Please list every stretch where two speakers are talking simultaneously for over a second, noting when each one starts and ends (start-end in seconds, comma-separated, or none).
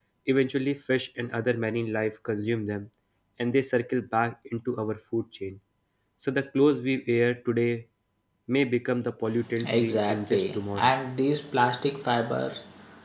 9.7-10.9